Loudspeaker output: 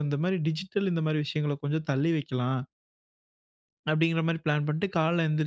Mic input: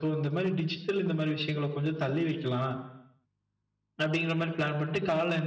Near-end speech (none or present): none